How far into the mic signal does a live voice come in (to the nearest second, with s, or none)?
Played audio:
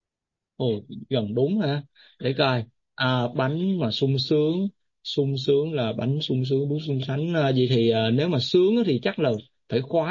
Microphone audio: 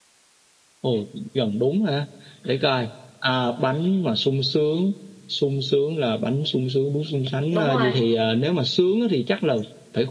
8 s